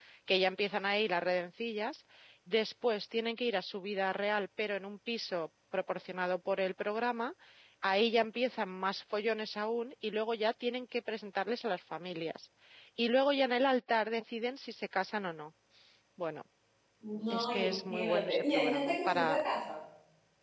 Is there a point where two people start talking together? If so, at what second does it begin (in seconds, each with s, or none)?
17.3 s